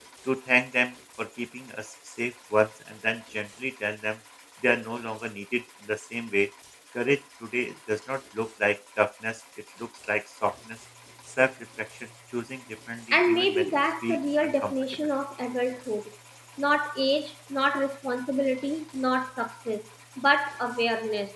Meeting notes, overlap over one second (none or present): present